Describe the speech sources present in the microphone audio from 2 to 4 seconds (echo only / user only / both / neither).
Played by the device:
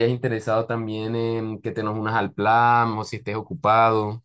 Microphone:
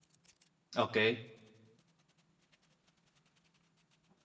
neither